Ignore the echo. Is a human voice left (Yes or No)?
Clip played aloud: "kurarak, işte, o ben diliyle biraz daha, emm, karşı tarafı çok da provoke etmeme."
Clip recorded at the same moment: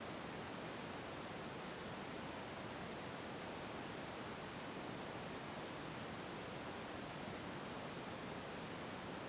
No